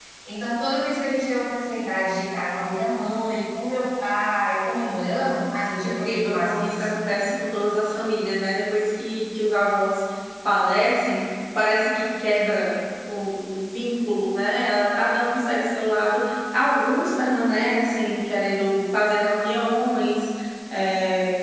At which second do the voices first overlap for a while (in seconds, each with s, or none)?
5.8 s